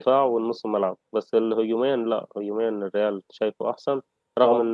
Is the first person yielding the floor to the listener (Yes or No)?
No